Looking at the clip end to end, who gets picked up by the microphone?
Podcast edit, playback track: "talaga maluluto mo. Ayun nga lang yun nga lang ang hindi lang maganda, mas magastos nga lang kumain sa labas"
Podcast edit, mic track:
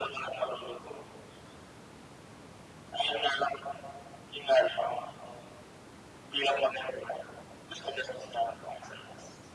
echo only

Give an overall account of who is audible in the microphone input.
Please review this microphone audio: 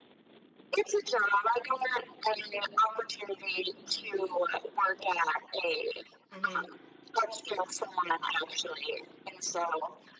both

